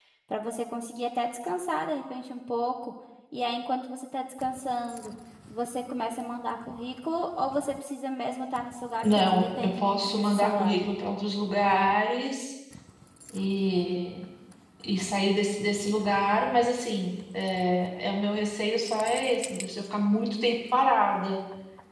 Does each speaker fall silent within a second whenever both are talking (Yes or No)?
No